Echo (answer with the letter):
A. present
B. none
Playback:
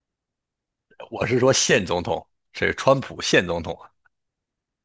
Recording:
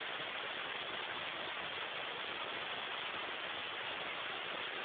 B